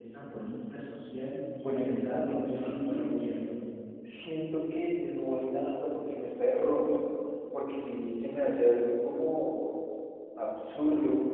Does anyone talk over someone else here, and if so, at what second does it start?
1.6 s

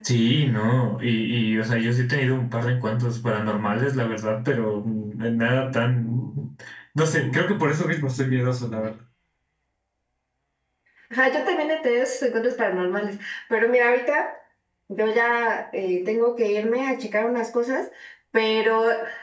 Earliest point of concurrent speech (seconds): none

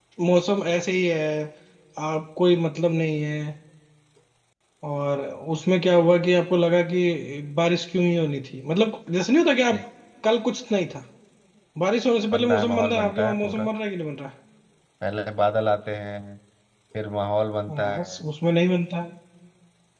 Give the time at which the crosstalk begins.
12.3 s

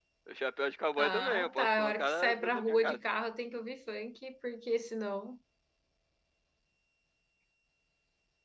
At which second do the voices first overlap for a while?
1.0 s

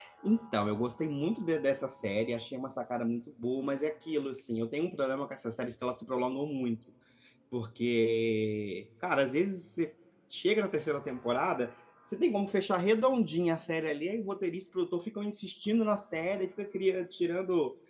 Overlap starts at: none

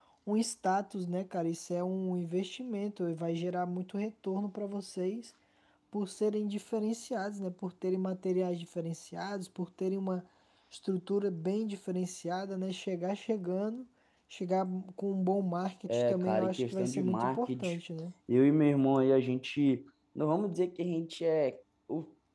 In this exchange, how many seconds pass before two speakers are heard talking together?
15.9 s

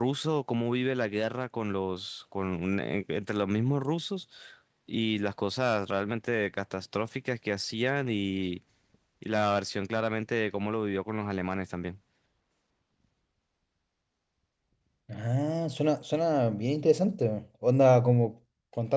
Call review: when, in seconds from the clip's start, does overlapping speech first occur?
none

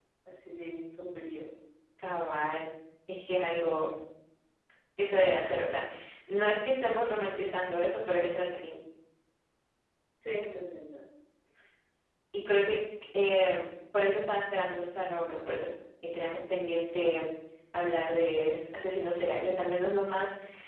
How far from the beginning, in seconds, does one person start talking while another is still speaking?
none

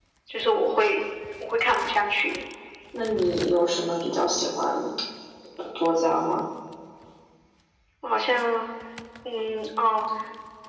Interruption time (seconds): none

